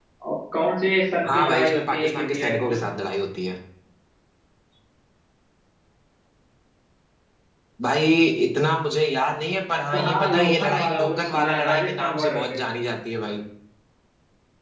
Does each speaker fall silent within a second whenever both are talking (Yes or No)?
No